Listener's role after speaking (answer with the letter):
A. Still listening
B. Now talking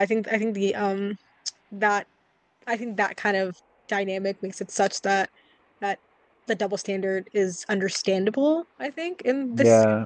B